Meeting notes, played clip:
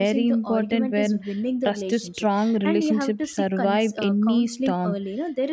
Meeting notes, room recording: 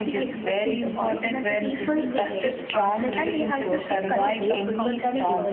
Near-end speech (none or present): present